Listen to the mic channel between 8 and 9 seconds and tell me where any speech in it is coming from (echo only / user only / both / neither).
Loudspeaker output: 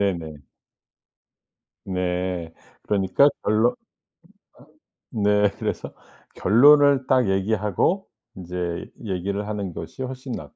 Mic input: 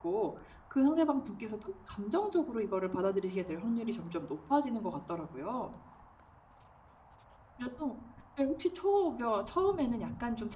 user only